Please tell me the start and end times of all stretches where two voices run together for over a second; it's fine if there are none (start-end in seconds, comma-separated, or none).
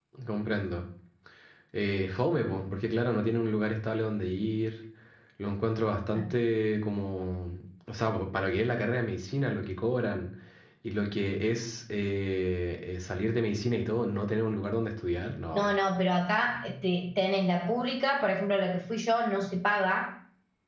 none